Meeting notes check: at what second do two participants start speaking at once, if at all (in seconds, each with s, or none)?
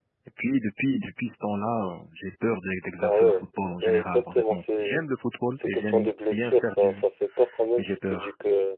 3.0 s